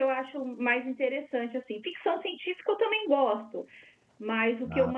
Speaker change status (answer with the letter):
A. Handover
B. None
B